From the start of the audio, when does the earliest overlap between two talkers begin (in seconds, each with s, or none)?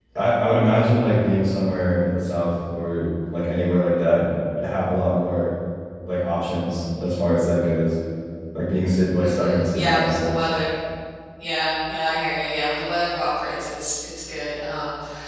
9.2 s